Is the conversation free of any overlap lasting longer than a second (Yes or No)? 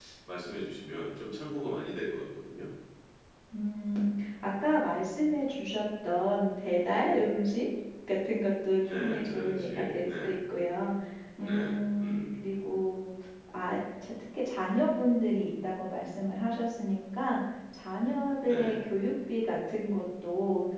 No